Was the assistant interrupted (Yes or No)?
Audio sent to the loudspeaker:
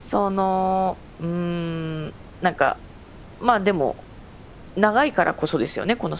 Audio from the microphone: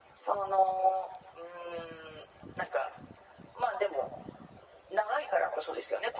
No